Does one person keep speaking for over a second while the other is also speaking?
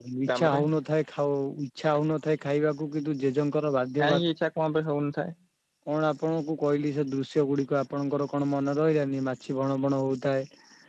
No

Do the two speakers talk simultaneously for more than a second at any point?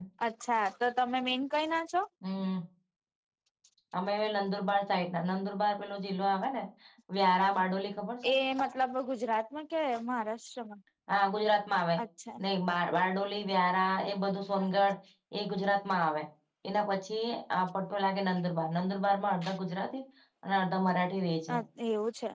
No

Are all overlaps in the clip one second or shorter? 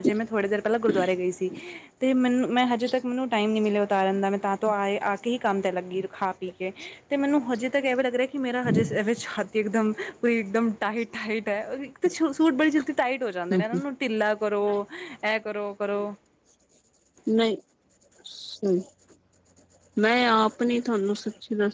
Yes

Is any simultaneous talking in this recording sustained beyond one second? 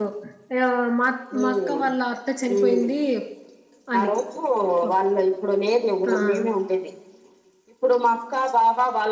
No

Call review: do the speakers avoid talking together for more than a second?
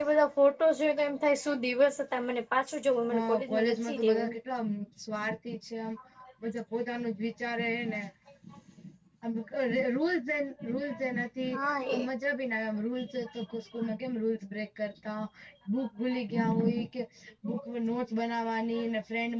No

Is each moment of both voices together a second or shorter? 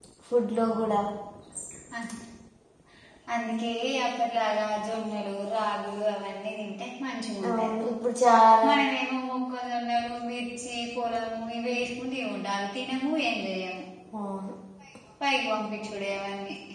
Yes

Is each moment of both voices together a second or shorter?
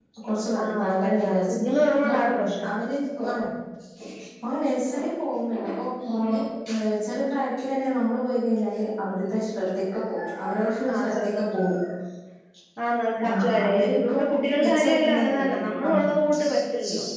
No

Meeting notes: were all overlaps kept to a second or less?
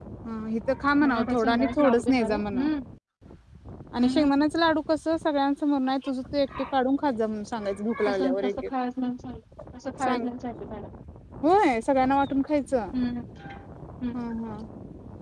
No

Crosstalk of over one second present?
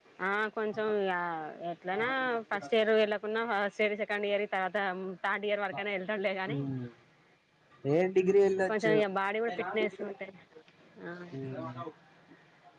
No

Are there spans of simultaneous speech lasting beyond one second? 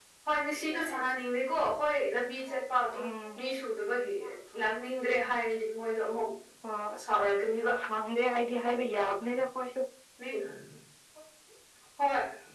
No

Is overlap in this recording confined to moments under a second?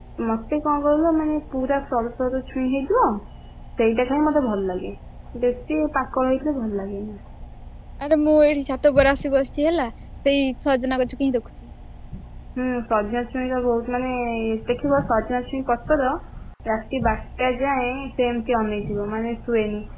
Yes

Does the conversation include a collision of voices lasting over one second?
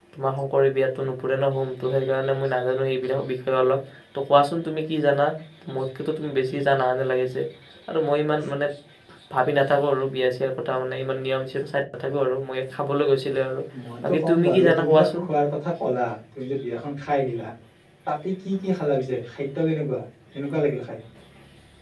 Yes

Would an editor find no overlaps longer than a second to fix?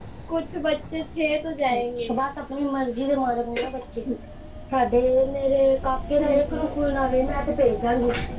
Yes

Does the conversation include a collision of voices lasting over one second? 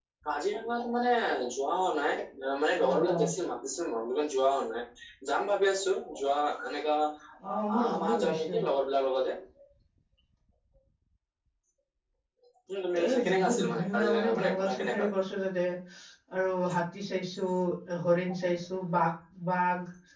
Yes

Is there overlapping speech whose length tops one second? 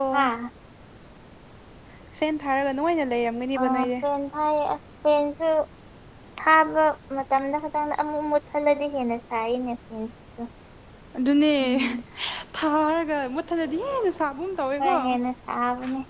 No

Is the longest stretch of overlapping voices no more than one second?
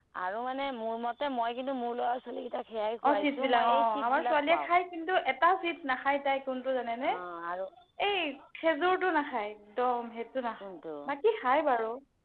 No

